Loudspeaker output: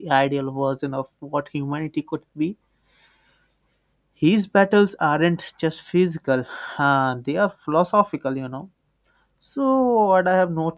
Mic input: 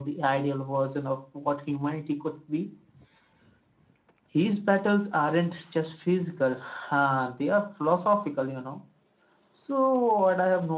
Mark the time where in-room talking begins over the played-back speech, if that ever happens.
none

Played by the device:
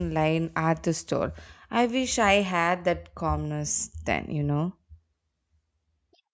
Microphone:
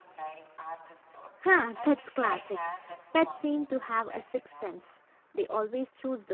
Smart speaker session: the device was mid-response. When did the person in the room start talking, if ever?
1.4 s

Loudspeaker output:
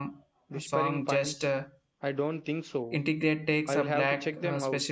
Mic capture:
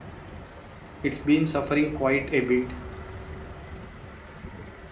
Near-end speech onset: 1.0 s

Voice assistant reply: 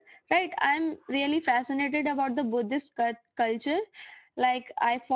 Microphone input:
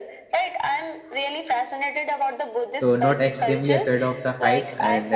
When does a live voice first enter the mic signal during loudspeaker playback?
2.7 s

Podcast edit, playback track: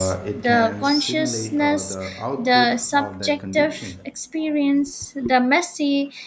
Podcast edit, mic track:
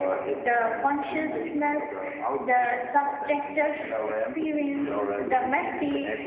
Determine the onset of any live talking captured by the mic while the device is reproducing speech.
3.8 s

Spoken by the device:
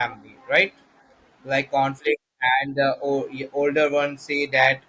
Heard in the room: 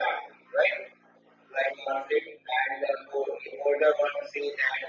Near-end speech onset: none

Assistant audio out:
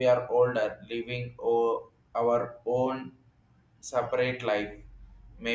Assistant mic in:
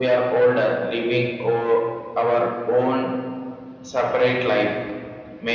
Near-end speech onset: none

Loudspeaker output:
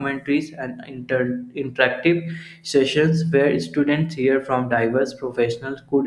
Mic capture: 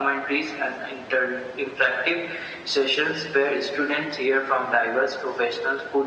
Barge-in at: none

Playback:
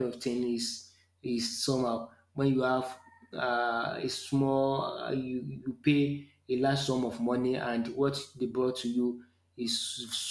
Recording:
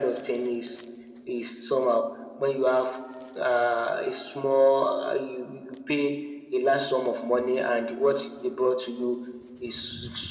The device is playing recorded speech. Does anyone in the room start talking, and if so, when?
none

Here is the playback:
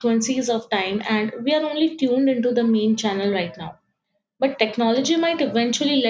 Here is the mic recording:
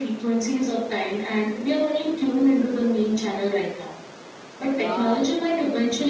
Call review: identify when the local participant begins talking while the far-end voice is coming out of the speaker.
4.6 s

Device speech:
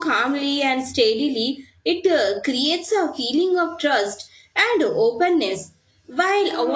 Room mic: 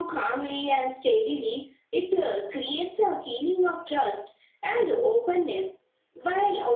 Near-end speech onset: none

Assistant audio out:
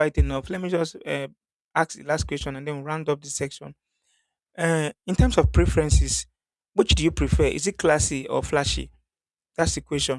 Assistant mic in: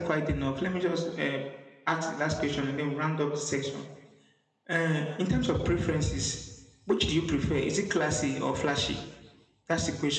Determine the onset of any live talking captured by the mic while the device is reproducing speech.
none

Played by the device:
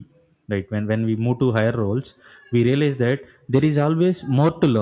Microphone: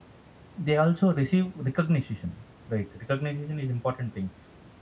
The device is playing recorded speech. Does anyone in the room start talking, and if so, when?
0.6 s

